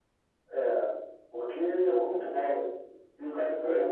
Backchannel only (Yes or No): Yes